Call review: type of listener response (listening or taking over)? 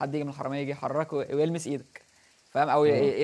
listening